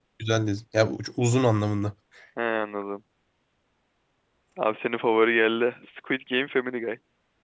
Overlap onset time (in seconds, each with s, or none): none